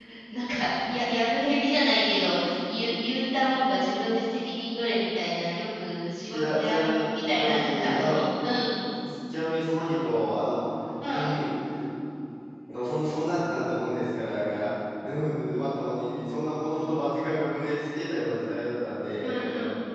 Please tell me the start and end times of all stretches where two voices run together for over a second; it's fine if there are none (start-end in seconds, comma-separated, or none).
6.3-8.2